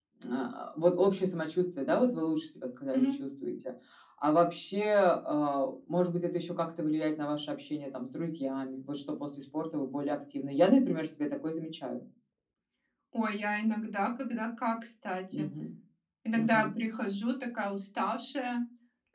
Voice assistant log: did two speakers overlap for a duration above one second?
No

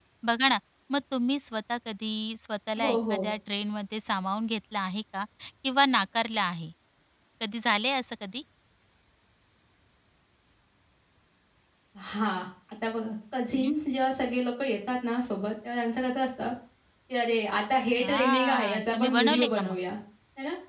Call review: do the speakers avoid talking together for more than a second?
No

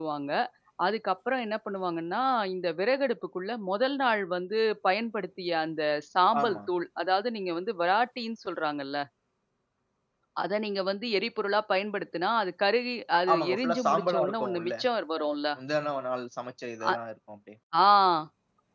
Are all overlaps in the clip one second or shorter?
No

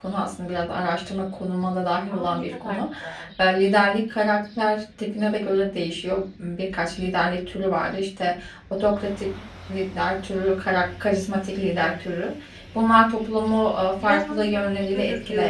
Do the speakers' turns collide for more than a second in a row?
Yes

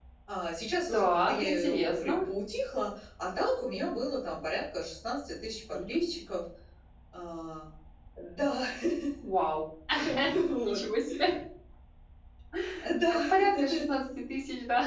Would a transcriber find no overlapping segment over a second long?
No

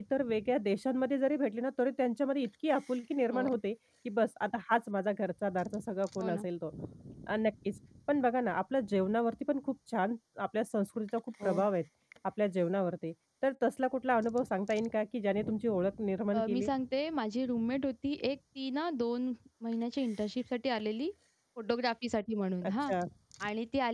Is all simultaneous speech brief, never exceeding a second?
Yes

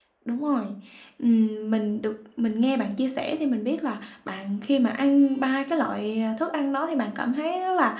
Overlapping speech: No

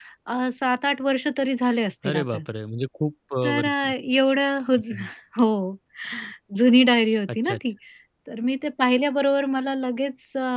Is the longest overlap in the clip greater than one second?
No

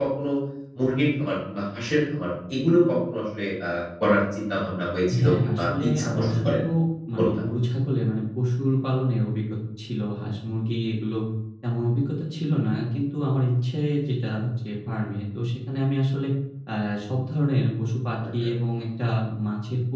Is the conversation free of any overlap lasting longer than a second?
No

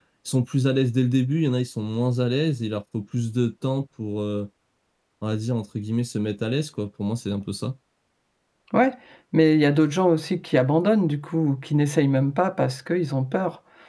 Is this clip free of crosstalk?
Yes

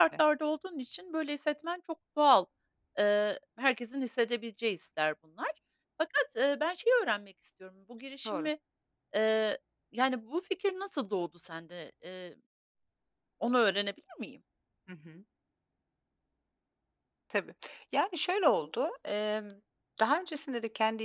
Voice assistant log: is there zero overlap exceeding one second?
Yes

